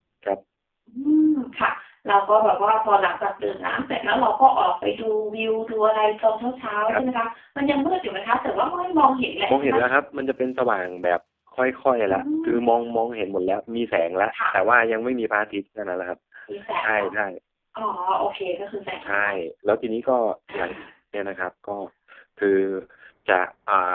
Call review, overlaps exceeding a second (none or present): none